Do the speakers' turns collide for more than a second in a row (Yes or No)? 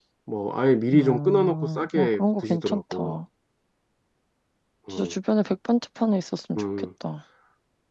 Yes